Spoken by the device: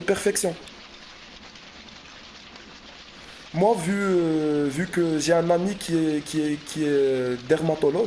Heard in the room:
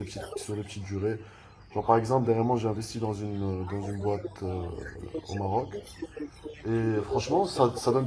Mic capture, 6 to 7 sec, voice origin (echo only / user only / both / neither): both